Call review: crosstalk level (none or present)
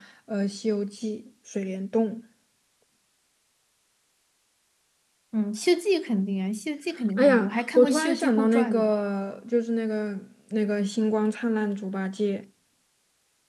present